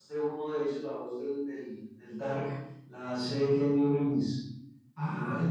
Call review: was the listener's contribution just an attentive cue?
No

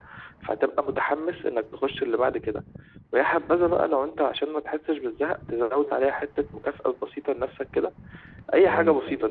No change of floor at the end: Yes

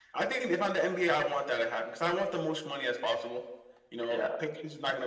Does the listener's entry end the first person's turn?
No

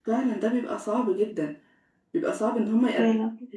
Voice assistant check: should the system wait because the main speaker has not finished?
Yes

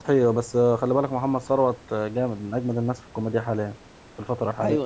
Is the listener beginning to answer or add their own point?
Yes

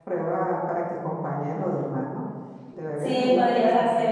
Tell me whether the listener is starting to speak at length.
Yes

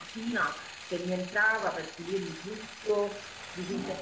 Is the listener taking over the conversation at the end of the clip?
No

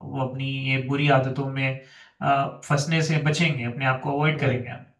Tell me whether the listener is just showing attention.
No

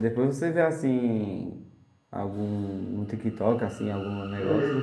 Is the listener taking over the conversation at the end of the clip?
Yes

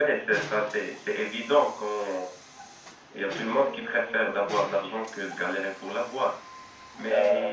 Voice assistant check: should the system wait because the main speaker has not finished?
Yes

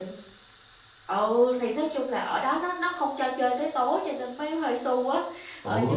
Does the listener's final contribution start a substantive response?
No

